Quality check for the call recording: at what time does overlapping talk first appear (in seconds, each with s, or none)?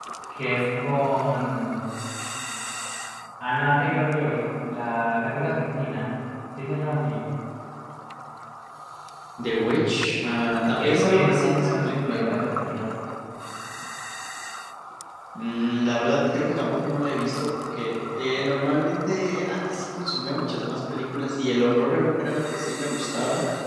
10.8 s